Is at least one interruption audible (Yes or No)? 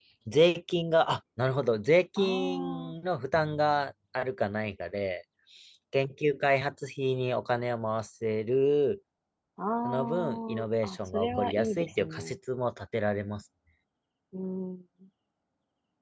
Yes